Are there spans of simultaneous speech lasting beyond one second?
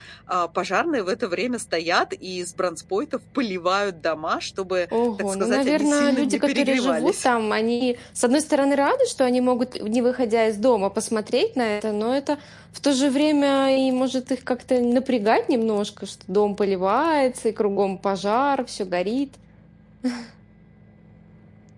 Yes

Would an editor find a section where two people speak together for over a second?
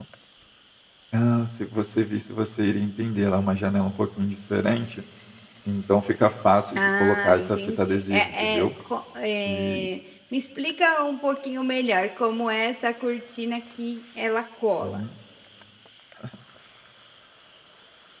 Yes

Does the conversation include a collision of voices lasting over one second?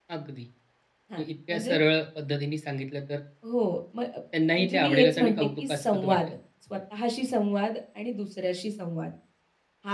Yes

